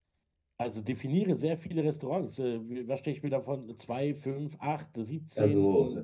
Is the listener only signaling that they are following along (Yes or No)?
No